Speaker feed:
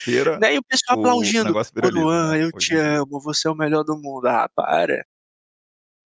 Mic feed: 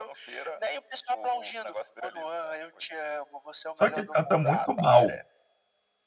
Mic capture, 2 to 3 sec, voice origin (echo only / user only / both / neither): echo only